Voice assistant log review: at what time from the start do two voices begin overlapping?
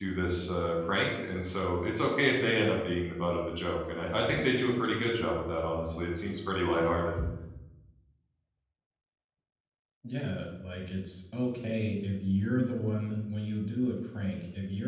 none

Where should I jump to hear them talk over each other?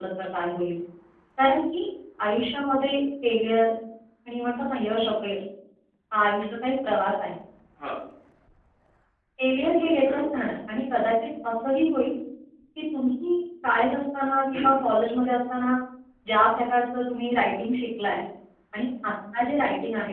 9.7 s

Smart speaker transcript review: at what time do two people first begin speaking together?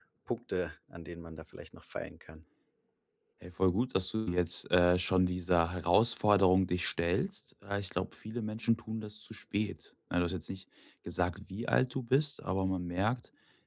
none

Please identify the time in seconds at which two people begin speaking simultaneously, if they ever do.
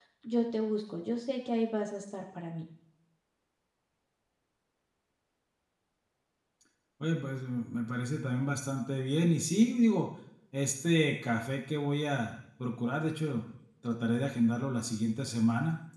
none

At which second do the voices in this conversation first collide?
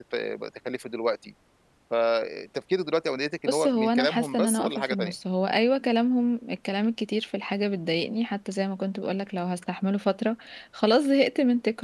3.5 s

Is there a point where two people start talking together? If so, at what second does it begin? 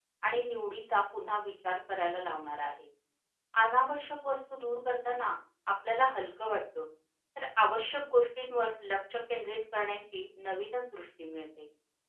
none

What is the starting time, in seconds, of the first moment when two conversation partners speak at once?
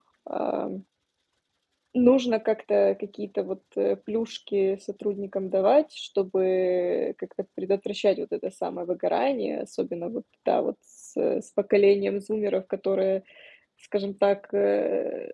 none

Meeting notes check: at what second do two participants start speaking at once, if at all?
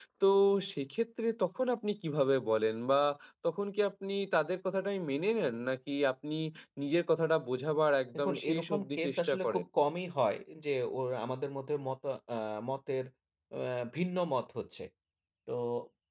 8.1 s

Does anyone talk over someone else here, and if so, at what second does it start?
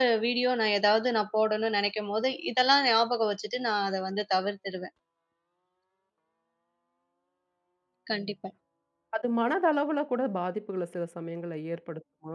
none

